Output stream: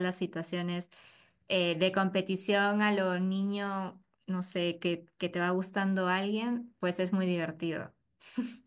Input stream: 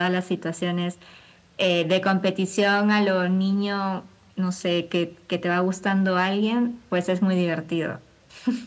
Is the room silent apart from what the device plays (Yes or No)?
Yes